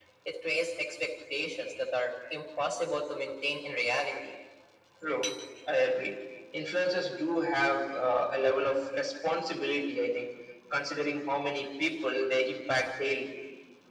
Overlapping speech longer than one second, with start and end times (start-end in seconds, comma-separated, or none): none